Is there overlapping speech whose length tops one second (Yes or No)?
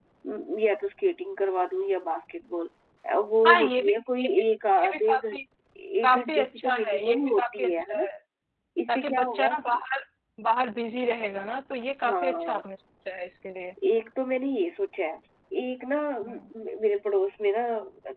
Yes